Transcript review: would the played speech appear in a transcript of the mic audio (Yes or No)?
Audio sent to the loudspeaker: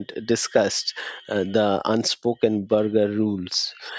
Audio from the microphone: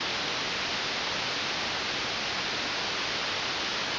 No